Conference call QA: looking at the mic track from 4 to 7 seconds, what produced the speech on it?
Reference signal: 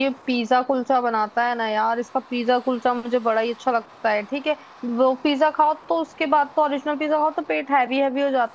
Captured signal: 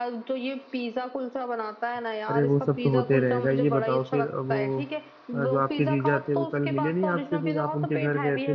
both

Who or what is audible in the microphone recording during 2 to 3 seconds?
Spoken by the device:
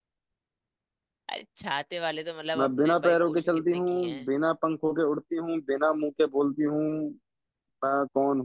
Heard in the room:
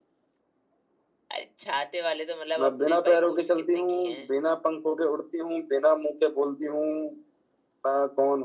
echo only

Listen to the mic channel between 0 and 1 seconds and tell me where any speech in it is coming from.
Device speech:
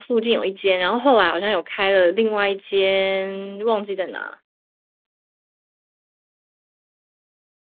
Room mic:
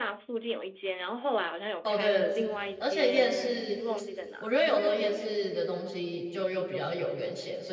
echo only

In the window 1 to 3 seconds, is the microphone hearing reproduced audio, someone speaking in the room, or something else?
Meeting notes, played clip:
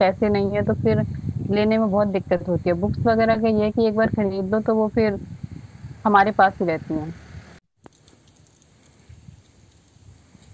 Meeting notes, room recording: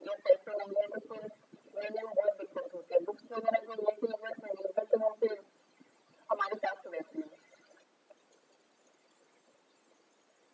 echo only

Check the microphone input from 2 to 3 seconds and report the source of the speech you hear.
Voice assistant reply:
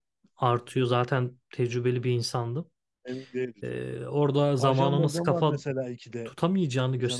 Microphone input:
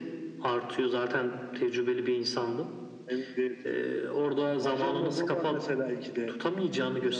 echo only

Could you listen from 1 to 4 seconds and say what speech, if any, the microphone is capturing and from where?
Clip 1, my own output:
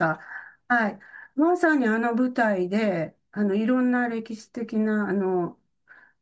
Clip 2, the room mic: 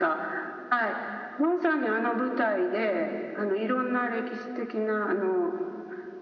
echo only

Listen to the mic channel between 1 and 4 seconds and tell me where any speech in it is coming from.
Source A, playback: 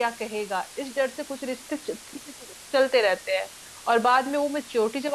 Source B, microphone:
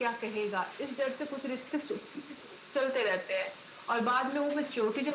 echo only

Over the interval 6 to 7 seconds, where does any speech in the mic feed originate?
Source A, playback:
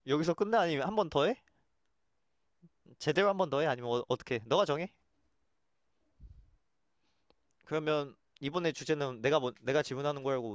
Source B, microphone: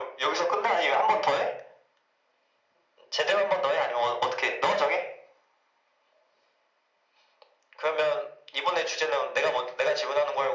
neither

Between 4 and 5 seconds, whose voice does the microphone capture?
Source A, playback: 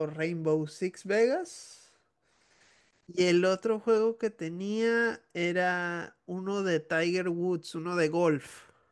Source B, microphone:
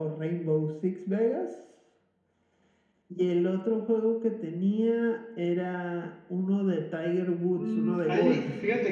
echo only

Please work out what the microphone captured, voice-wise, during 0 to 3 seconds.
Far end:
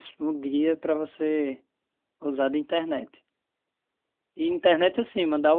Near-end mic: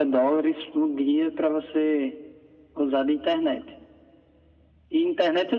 echo only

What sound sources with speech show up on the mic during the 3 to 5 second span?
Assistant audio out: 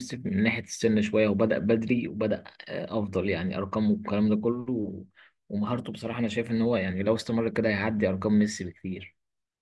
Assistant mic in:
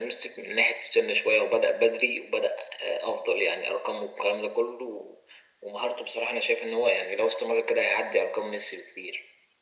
echo only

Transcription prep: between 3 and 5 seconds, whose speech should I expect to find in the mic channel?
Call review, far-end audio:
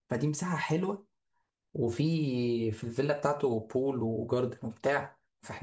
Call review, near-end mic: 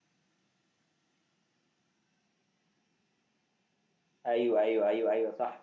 user only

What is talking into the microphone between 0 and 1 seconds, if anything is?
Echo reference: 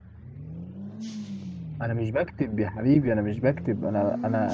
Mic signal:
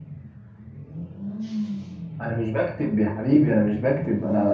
neither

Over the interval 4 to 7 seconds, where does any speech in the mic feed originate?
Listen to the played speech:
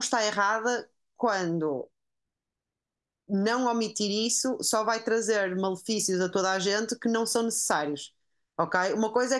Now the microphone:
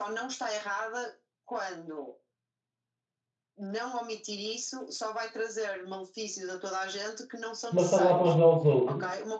echo only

